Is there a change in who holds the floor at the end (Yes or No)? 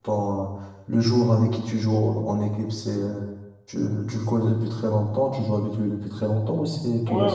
Yes